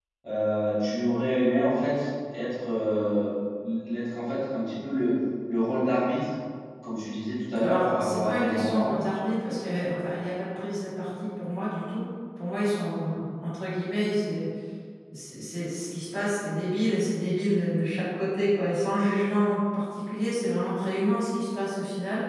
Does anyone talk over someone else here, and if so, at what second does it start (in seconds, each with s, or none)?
7.6 s